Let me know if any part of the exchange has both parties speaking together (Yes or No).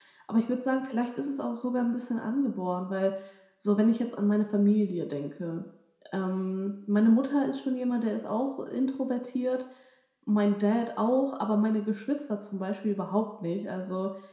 No